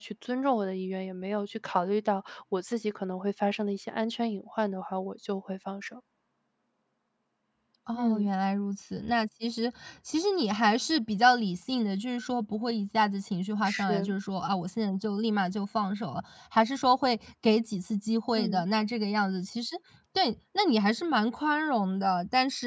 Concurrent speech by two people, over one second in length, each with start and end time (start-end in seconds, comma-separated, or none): none